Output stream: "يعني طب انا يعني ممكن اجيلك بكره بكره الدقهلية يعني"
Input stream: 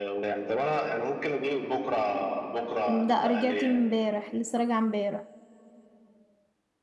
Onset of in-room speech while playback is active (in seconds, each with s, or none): 2.9 s